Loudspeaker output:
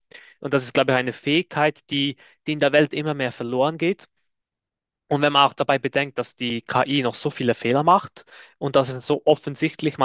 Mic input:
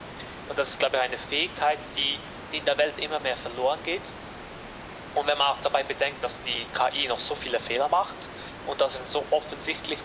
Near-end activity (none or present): none